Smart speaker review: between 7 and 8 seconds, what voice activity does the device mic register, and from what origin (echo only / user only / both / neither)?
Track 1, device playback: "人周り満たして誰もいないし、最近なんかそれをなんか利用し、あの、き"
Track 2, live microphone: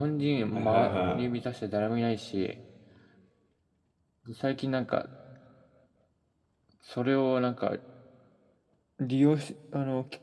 echo only